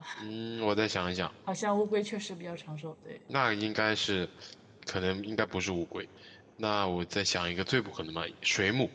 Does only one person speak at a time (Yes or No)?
Yes